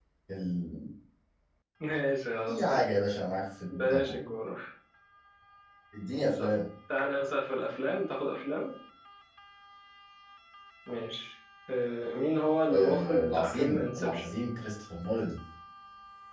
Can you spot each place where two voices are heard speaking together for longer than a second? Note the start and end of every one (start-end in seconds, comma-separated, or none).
12.7-14.3